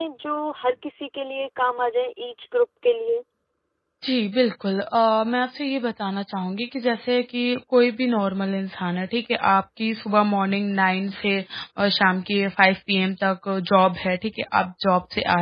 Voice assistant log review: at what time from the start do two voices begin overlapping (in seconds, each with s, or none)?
none